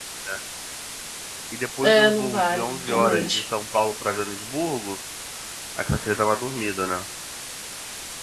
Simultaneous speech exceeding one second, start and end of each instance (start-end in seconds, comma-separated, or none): 1.8-3.3